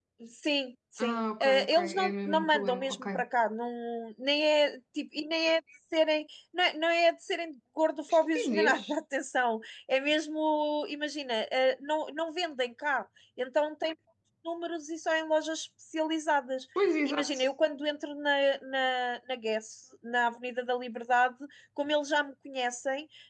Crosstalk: present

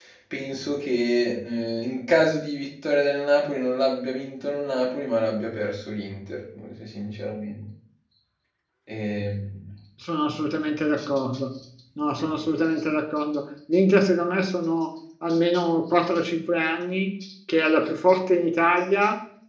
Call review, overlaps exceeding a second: none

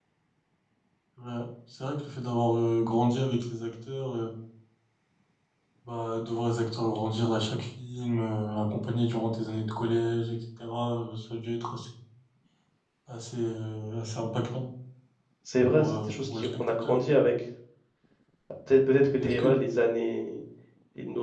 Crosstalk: present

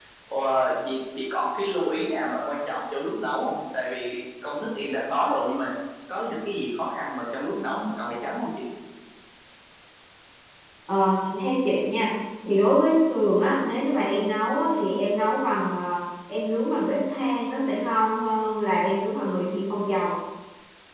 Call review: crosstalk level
none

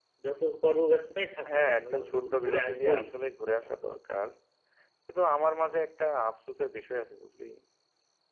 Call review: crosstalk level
present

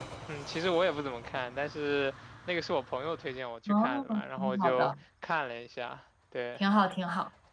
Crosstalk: present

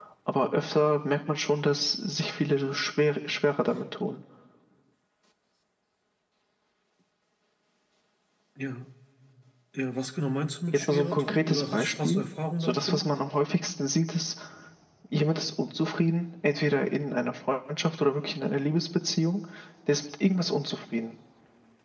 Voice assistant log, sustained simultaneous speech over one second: present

